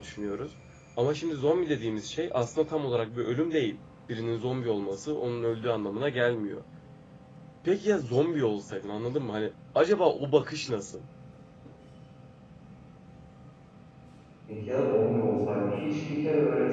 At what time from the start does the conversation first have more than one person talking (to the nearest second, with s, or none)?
none